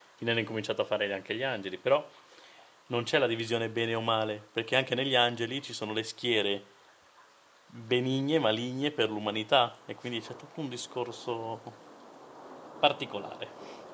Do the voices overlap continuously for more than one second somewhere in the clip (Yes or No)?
No